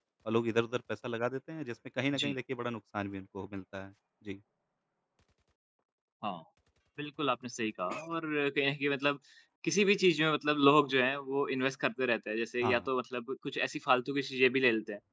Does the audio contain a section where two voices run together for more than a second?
No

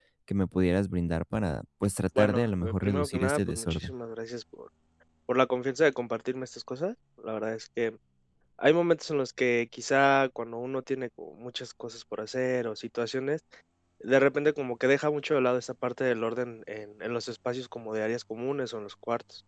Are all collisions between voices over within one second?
No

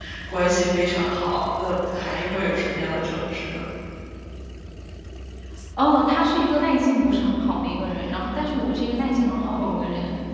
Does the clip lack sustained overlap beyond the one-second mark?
Yes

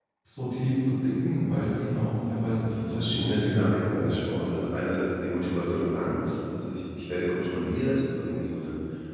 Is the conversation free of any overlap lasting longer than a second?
No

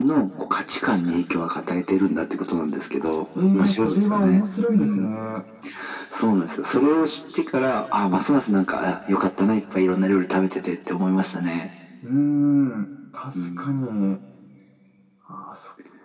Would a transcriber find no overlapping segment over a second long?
No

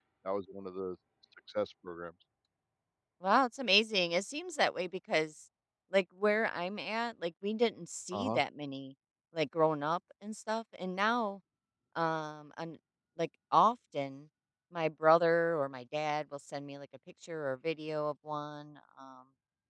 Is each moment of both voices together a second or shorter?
Yes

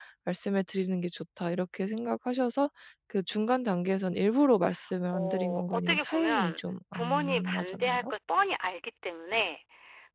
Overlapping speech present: Yes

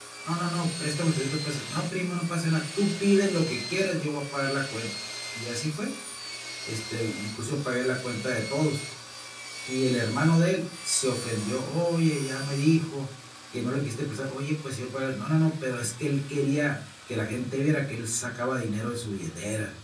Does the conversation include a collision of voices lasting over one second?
No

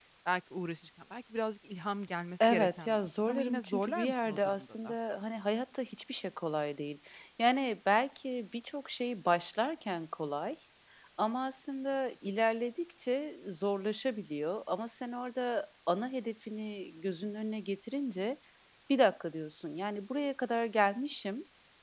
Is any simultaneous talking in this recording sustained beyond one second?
Yes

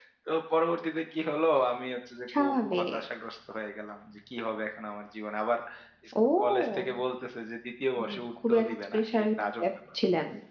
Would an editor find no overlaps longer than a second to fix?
No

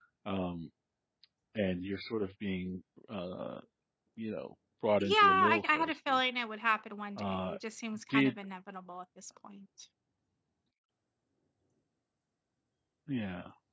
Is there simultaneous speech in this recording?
Yes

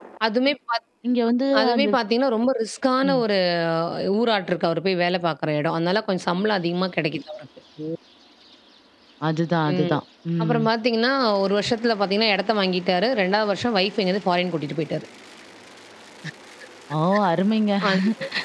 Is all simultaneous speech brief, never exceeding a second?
Yes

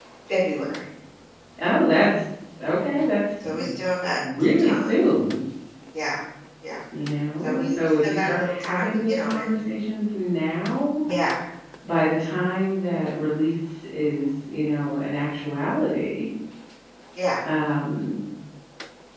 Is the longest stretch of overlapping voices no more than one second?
No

